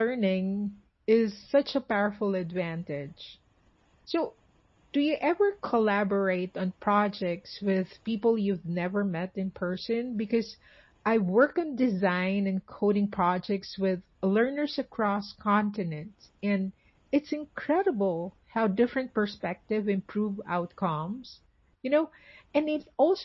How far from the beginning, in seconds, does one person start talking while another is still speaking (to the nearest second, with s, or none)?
none